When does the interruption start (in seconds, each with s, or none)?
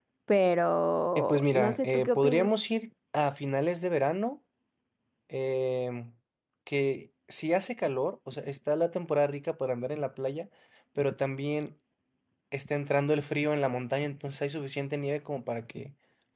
1.1 s